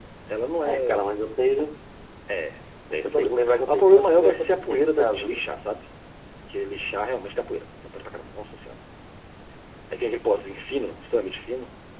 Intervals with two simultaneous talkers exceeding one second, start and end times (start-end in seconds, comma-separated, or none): 3.0-5.4